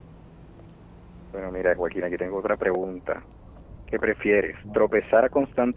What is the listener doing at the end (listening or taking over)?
listening